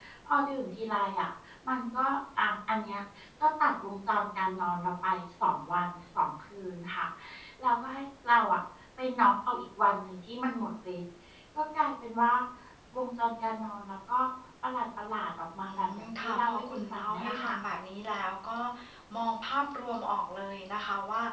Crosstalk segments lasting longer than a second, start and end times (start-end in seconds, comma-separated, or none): 15.7-17.6